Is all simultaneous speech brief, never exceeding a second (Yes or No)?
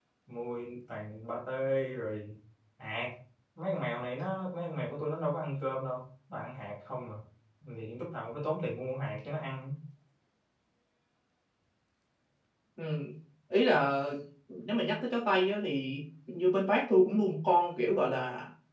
Yes